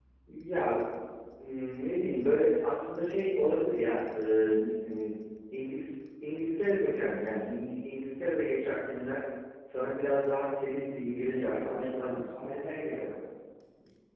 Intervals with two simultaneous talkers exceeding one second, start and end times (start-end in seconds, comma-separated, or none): 10.9-12.2